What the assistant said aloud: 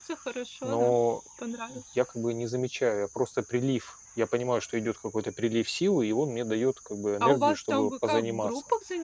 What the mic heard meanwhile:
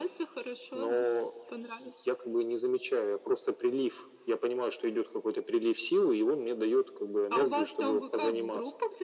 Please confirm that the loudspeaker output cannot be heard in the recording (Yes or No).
No